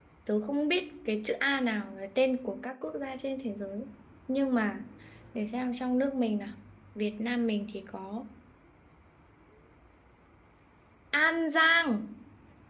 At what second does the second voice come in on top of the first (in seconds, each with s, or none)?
none